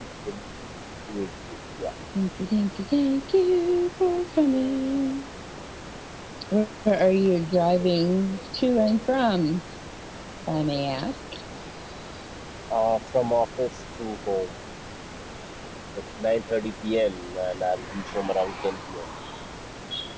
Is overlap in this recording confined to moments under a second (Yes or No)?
Yes